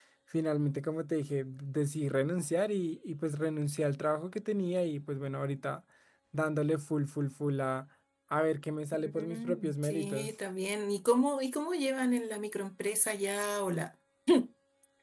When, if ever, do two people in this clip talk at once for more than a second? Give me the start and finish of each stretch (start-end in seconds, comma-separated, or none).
8.9-10.3